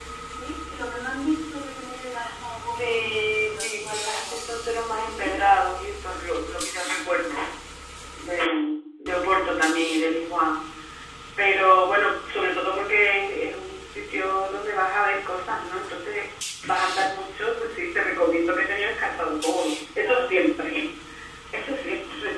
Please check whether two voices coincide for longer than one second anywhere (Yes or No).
Yes